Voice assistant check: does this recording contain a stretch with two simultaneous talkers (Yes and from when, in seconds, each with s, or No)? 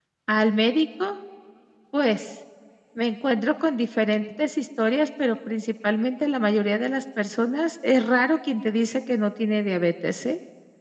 No